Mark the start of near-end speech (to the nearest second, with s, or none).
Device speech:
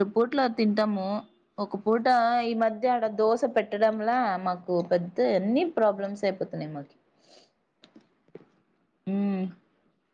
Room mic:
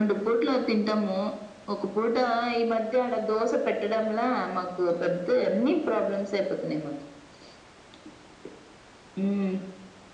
none